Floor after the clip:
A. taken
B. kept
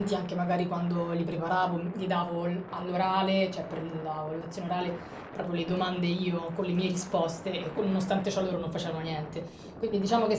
B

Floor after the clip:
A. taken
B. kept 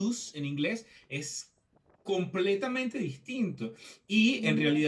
B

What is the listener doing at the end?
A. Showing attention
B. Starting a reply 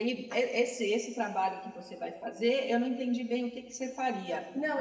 A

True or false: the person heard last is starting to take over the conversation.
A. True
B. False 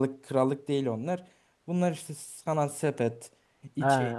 B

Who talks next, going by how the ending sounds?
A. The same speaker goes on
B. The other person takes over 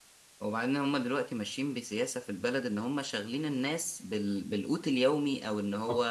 A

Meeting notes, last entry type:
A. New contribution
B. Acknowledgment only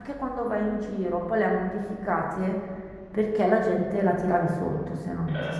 A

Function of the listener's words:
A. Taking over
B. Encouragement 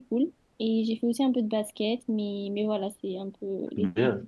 A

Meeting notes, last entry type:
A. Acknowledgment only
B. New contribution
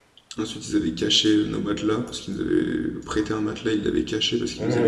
B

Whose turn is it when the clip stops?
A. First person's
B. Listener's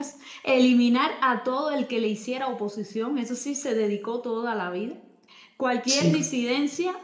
A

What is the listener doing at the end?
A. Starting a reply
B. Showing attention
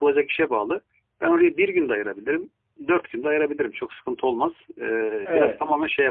A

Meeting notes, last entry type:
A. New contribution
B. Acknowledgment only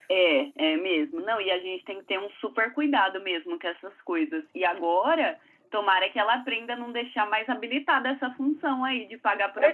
A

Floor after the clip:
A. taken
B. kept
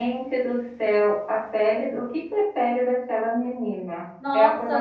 A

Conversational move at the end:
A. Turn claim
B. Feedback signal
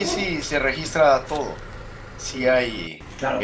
A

